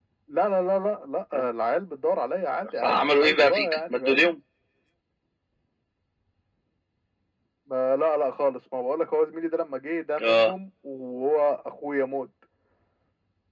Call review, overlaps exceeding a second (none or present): present